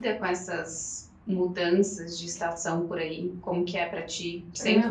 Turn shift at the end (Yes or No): Yes